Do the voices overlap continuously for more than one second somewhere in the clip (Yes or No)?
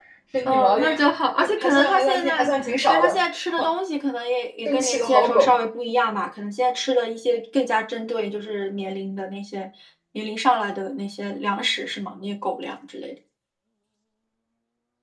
Yes